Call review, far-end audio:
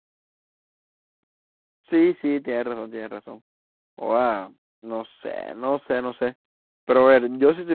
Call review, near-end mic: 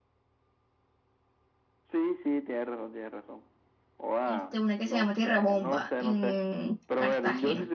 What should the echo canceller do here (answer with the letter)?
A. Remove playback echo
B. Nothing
A